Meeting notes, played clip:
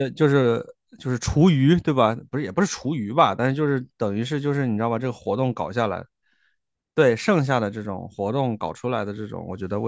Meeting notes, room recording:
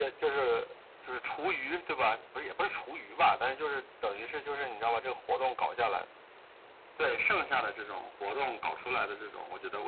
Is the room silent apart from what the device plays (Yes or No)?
Yes